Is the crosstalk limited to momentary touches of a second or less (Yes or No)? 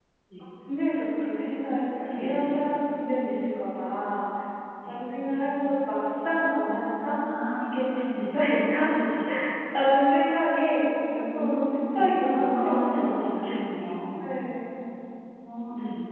No